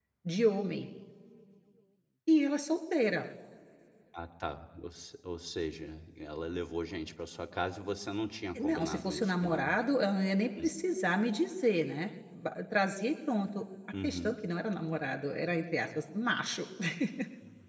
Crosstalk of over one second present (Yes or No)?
Yes